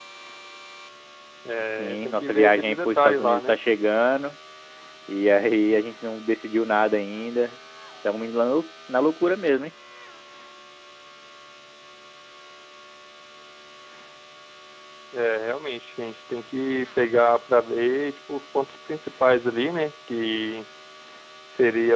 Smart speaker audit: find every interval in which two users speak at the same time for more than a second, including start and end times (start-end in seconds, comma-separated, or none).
1.8-3.5